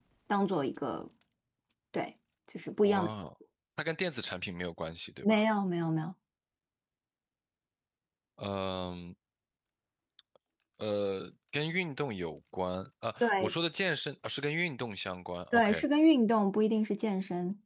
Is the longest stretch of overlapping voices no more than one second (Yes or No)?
Yes